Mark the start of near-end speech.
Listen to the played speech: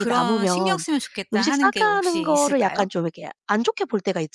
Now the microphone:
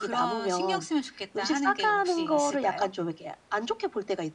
none

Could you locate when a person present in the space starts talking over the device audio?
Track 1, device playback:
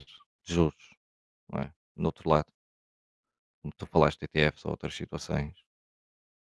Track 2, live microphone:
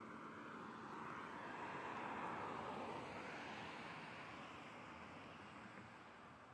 none

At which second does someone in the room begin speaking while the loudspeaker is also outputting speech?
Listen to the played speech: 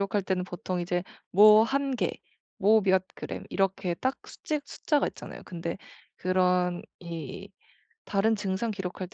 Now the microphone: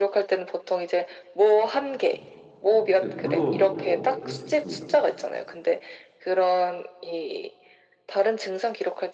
2 s

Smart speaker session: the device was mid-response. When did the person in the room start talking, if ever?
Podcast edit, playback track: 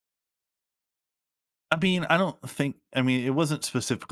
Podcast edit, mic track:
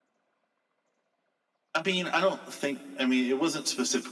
none

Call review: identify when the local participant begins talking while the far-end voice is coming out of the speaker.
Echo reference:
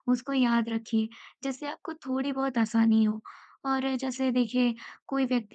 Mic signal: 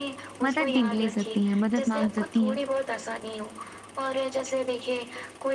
0 s

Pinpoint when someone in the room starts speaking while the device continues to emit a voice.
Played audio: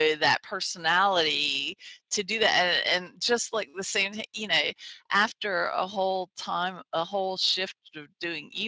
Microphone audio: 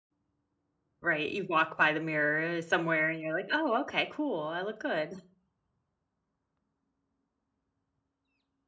1 s

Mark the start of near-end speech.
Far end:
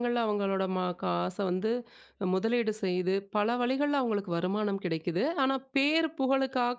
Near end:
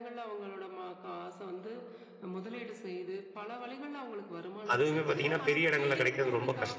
5 s

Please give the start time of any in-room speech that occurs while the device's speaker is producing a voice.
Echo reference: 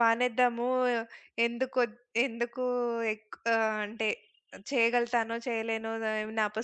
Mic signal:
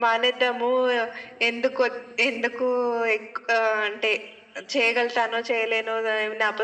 none

